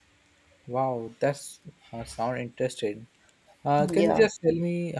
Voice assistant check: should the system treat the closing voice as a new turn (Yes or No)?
No